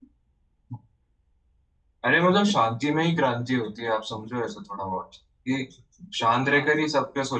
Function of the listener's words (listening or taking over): listening